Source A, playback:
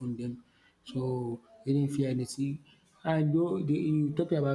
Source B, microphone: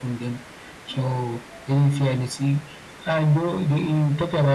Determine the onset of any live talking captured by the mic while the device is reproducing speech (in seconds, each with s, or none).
none